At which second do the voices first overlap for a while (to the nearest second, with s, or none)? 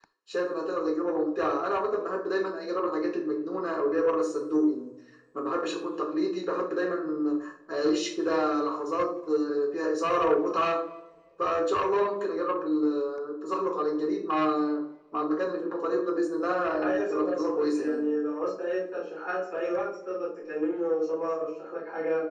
17 s